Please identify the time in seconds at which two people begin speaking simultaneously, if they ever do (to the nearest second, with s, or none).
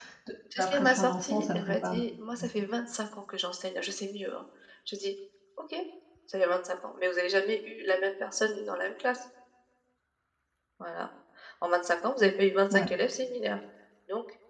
1 s